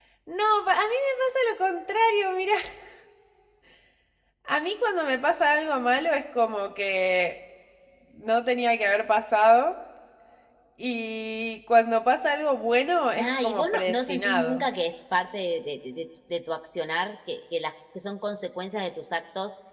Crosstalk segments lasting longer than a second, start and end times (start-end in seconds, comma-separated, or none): 13.2-14.6